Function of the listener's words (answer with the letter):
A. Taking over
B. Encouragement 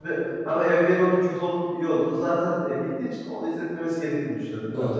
A